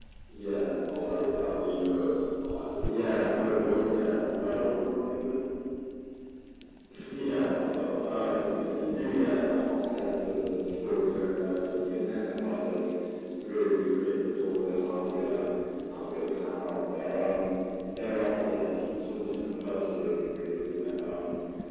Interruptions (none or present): present